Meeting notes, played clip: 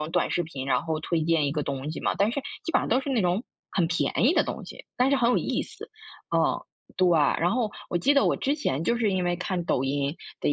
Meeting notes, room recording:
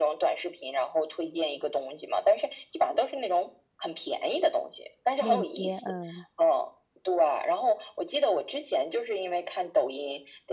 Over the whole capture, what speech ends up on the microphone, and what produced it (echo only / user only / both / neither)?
both